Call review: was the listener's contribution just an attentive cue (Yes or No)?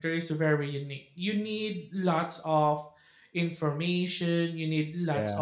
Yes